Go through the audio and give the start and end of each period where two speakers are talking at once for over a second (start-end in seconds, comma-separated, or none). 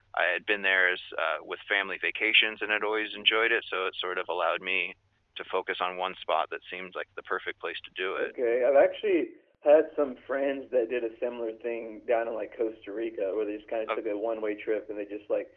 none